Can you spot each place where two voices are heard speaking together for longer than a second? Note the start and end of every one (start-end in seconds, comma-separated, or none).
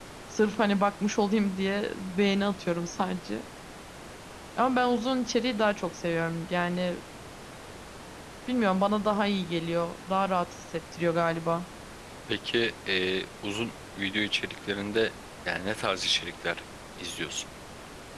none